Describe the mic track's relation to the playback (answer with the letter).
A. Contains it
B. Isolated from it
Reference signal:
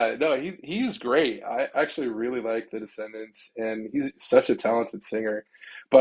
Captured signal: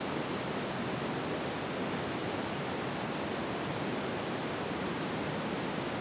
B